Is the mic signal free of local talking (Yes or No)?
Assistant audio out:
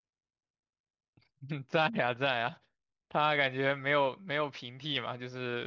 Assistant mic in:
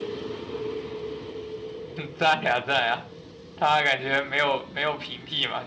Yes